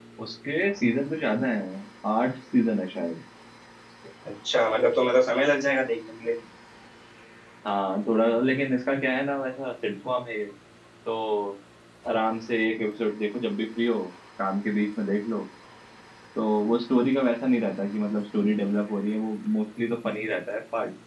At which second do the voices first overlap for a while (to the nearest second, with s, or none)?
none